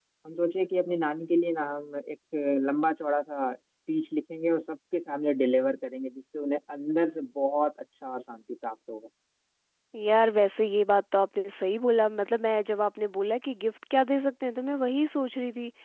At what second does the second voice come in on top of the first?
none

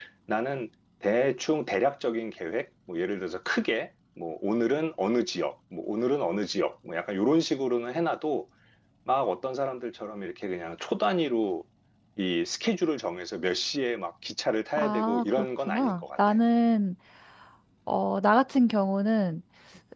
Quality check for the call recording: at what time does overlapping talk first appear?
14.8 s

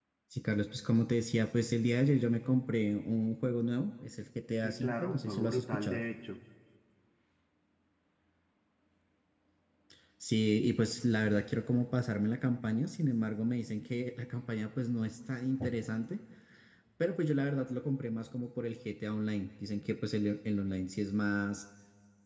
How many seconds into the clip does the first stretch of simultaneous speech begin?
4.6 s

